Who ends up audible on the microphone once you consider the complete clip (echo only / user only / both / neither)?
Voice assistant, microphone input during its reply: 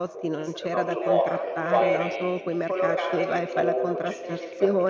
both